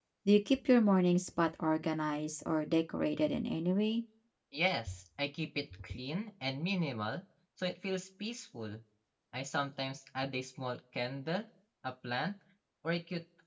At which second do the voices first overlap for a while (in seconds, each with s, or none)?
none